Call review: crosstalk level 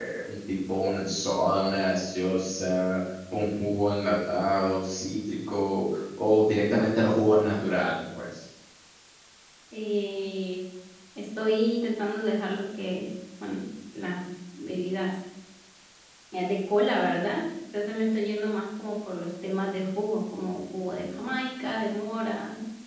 none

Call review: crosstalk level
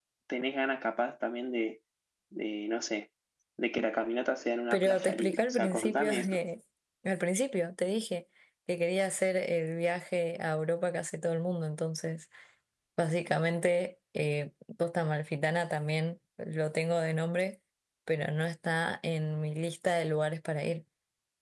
present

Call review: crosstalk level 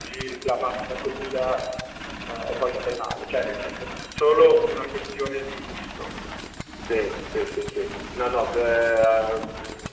none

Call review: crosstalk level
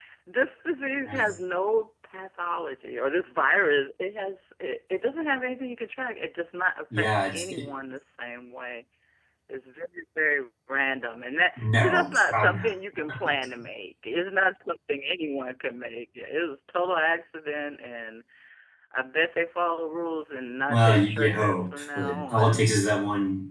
present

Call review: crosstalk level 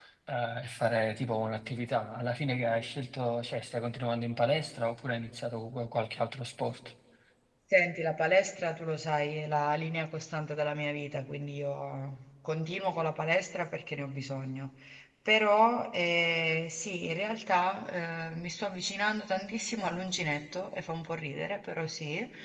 none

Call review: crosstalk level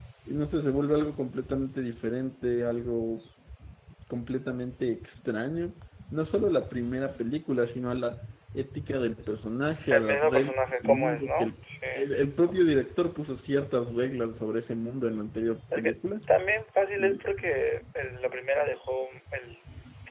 present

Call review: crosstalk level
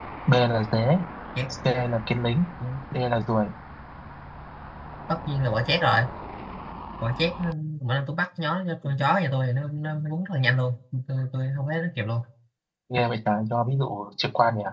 none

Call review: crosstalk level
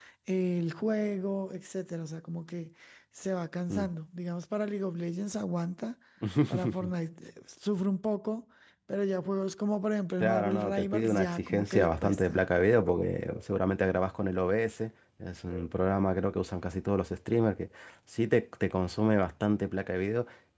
present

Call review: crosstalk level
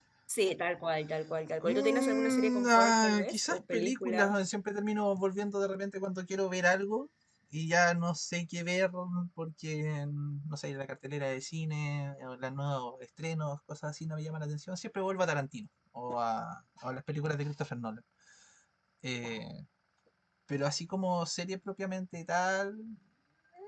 present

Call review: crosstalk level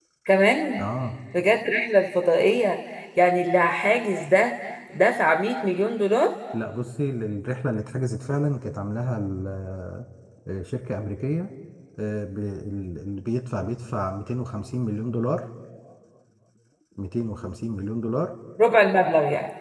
none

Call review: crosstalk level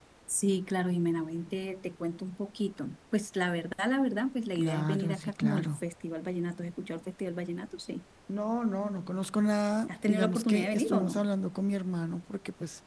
present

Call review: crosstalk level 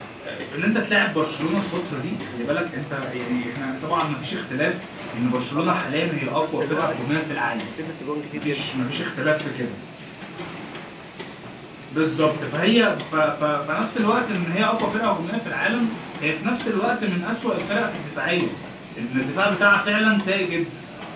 present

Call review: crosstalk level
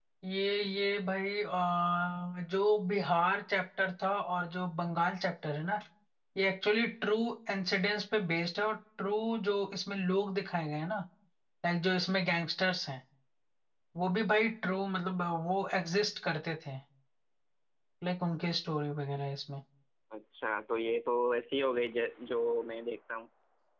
none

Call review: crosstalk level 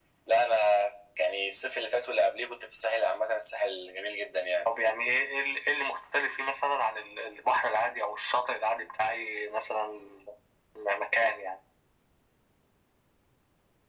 none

